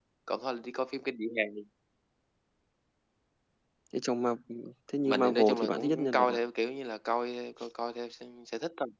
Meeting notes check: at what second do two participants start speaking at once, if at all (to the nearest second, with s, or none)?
5 s